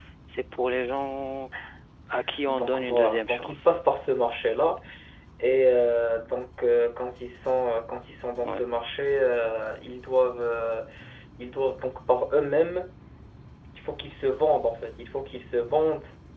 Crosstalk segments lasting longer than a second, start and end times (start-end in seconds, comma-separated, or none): 2.5-3.8